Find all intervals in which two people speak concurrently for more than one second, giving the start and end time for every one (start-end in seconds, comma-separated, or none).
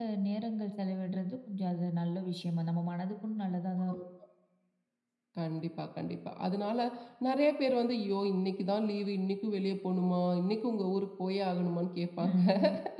none